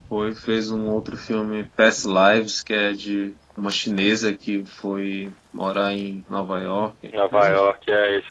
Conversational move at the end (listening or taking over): taking over